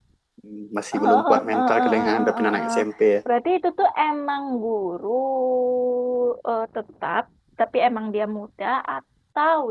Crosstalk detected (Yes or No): Yes